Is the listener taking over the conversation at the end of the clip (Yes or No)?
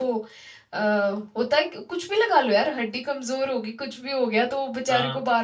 No